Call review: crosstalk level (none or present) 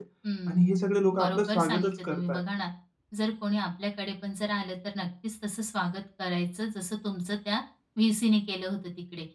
present